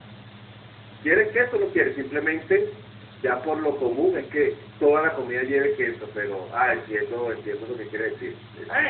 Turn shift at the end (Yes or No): Yes